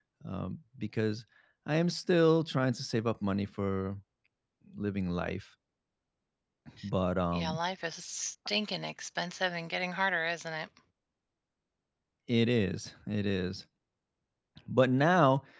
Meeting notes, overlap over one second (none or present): none